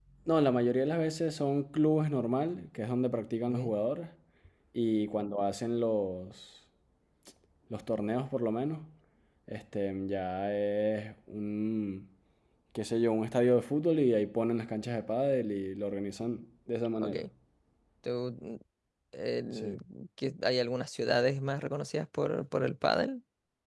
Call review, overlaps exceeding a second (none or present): none